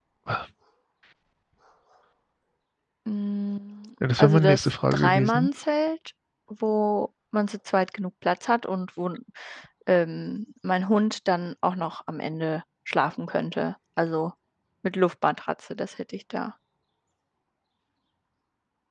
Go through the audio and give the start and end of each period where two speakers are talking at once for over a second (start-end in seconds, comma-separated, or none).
4.2-5.5